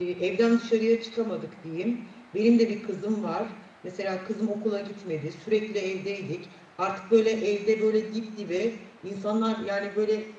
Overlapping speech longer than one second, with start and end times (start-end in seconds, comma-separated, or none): none